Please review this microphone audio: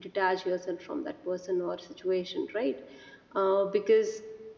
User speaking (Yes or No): Yes